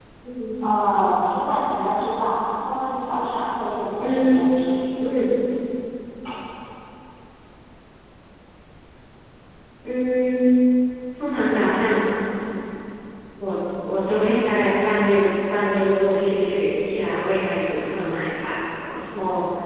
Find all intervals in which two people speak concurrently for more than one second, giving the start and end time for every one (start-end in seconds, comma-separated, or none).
none